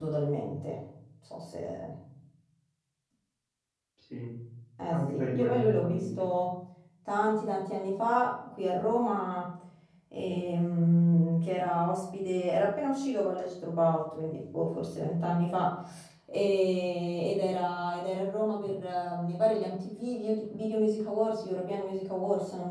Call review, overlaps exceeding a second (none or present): present